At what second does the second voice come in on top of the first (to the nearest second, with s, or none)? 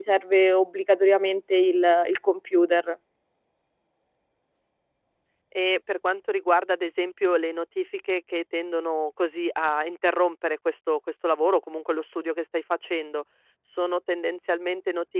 none